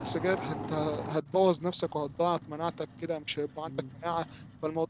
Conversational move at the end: listening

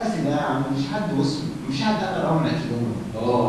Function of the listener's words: taking over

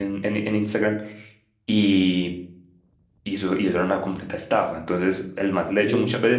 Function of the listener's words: listening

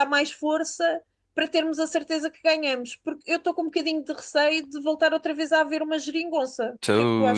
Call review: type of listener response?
taking over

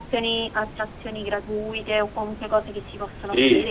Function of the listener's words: taking over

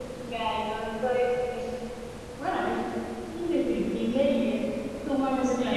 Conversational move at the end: taking over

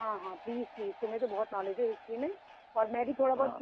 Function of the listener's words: listening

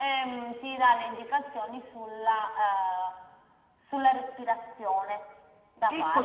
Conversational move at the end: taking over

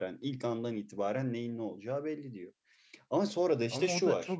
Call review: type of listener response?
taking over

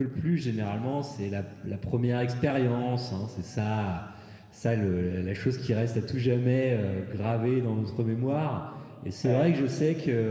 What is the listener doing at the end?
listening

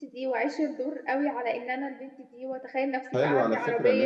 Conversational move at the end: taking over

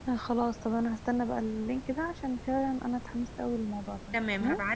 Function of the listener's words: taking over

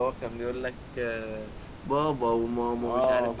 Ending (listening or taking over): taking over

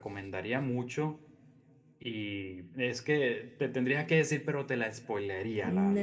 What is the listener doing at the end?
taking over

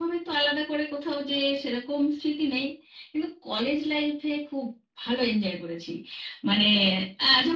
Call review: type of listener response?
listening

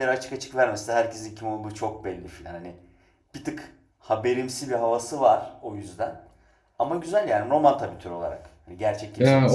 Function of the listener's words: taking over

